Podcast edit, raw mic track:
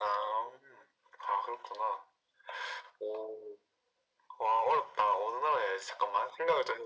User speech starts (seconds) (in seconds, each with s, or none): none